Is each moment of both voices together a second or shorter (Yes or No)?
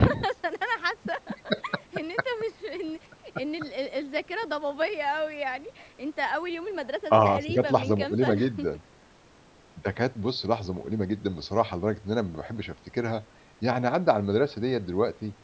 No